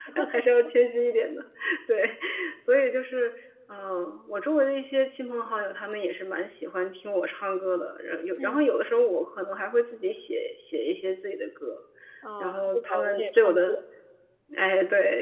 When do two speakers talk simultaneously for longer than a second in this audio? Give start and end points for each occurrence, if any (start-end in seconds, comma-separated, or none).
12.4-13.8